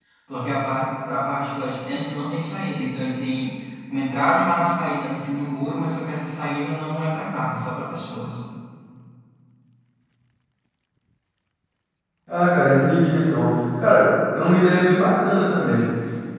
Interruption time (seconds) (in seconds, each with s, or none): none